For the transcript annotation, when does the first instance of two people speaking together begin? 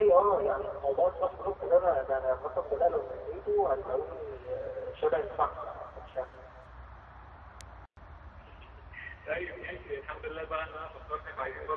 none

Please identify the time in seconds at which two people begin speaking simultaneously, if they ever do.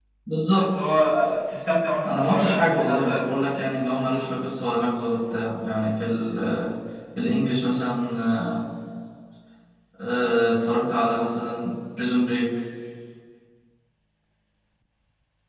2.0 s

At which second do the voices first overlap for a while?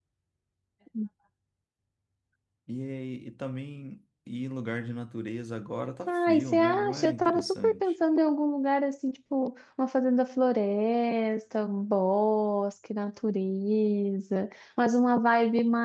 6.1 s

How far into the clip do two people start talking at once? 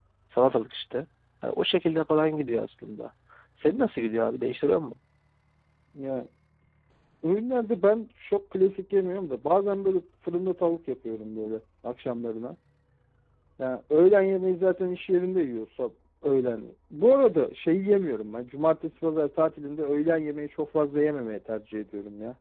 none

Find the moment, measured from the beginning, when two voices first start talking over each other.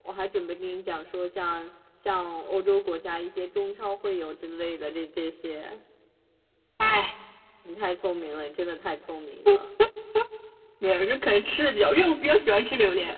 none

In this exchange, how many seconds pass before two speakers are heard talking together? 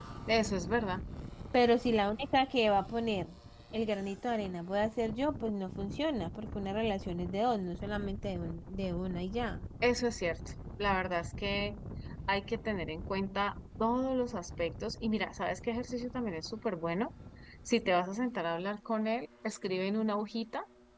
none

